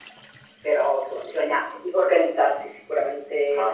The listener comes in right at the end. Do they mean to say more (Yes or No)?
Yes